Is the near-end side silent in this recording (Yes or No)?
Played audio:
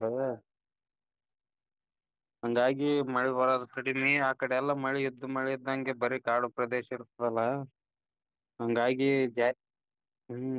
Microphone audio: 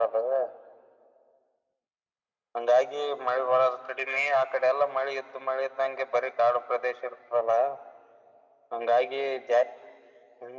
Yes